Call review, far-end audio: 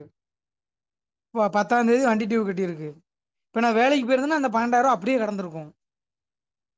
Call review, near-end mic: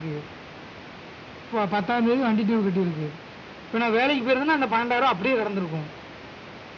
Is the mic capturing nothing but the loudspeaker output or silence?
Yes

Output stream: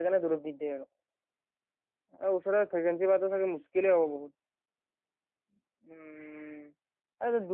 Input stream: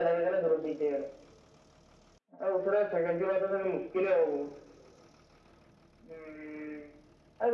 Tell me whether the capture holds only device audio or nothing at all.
Yes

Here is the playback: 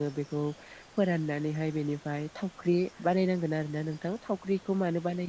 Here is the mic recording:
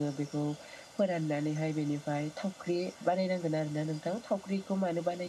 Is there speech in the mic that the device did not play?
No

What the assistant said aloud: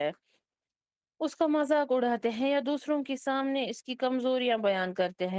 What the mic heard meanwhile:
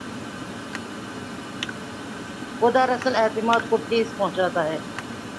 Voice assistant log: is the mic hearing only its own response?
No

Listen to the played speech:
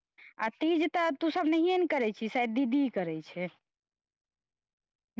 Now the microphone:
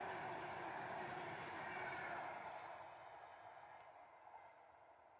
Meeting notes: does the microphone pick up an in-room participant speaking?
No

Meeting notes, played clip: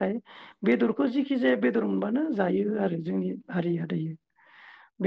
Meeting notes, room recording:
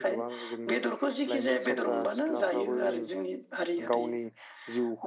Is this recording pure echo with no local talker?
No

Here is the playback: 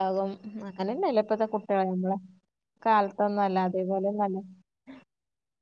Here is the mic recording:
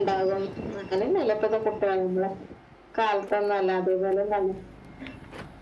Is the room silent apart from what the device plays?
Yes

